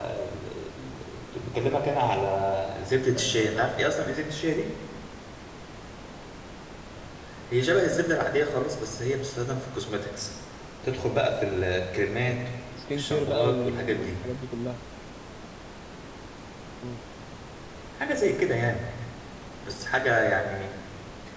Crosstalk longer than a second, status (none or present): present